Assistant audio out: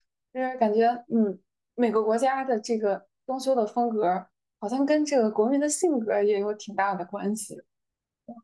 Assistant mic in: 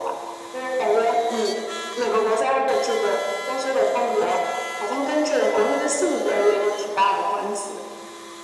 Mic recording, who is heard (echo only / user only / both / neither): echo only